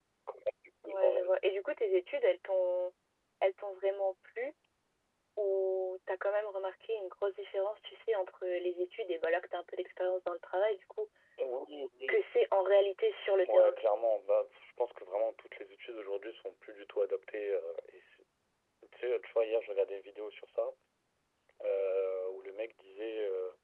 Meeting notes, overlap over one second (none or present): none